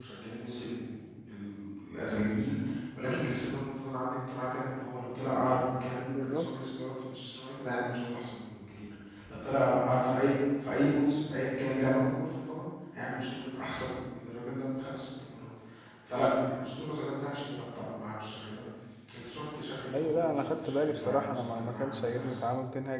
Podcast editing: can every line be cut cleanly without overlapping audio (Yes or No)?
No